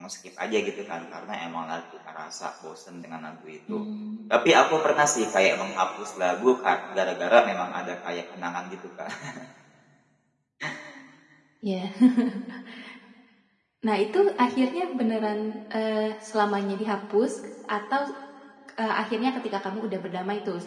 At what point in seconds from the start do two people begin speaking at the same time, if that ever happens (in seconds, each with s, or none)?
none